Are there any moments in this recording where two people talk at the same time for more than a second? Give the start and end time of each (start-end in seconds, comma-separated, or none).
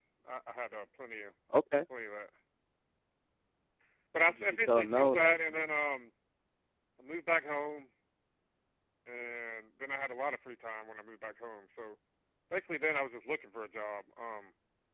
4.3-5.7